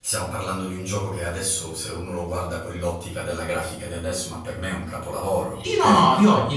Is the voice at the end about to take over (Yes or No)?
Yes